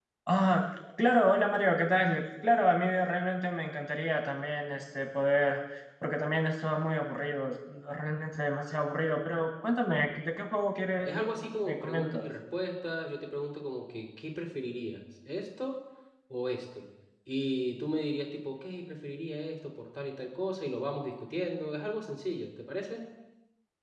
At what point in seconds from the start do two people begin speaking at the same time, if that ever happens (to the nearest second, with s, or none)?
11 s